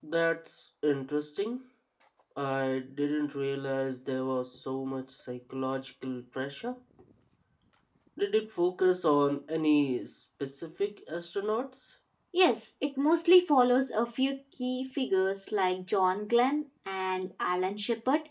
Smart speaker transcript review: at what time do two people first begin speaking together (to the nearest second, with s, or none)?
none